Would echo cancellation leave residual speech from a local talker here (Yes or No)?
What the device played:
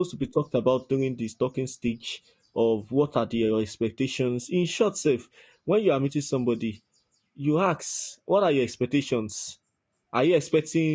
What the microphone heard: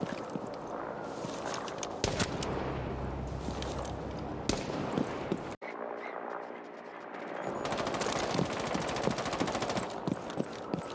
No